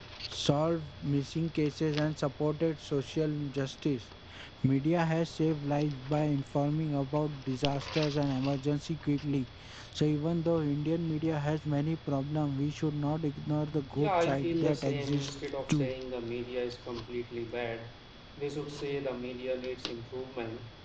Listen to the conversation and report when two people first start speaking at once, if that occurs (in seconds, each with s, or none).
13.9 s